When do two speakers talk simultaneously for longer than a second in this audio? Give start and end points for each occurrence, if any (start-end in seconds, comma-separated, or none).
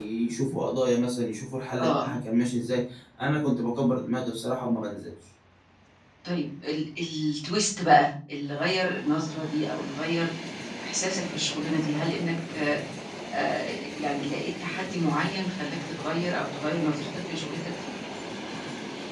none